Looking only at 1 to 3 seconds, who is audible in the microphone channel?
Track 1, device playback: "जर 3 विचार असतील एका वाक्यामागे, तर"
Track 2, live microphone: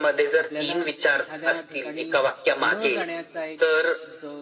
both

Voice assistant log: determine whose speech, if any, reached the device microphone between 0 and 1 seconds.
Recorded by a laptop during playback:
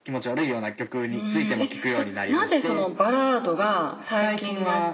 echo only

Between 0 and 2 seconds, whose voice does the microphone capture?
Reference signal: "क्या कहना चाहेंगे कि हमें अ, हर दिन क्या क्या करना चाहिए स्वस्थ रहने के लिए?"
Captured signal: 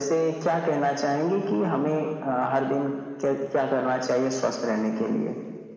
echo only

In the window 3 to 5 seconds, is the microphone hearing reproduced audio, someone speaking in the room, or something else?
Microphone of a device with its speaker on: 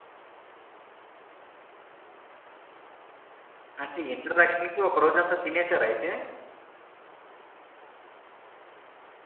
user only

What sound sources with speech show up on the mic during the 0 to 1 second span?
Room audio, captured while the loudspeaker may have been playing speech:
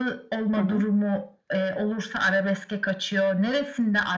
both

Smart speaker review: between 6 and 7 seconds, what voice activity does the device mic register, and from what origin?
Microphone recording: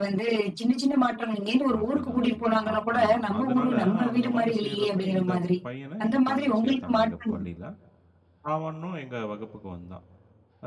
both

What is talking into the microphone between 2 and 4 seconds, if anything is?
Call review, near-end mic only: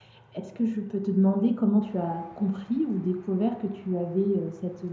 user only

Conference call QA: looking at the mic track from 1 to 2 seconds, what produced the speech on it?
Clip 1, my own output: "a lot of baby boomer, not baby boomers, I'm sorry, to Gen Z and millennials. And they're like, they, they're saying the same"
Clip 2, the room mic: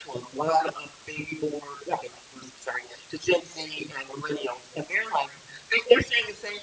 echo only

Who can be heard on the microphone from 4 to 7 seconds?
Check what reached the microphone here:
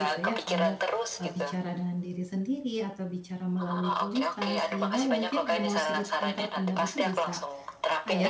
both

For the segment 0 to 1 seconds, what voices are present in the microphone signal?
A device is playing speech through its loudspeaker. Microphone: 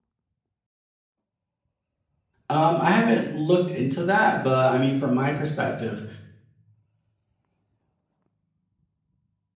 neither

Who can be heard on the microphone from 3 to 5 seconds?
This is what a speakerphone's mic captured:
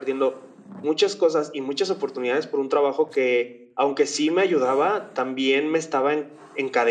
echo only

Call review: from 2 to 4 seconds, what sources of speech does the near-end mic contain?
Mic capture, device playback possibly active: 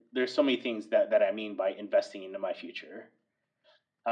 echo only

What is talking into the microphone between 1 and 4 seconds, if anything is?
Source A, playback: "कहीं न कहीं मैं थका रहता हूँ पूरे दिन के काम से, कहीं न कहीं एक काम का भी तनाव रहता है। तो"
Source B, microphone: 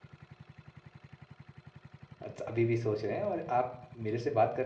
user only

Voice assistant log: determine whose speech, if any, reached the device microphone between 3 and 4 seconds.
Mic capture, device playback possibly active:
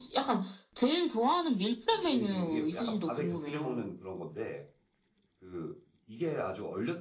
both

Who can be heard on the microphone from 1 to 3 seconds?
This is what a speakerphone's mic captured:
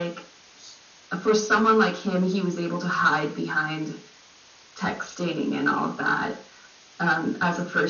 echo only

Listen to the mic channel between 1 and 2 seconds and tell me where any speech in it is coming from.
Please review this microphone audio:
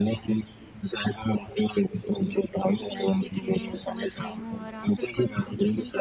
echo only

